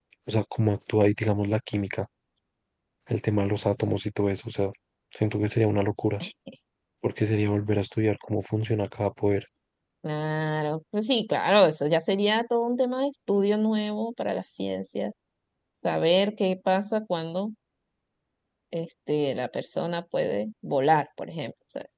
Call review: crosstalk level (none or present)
none